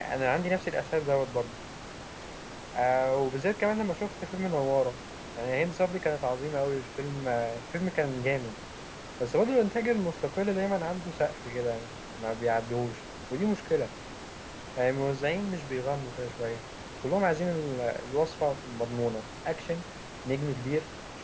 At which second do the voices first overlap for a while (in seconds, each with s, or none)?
none